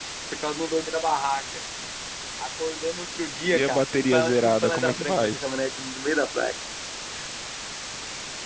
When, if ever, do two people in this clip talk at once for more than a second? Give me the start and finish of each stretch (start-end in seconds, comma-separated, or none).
3.5-5.4